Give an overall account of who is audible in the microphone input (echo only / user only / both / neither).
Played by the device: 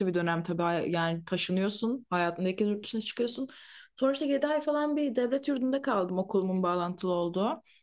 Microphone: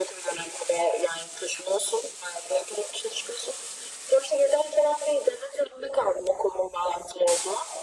echo only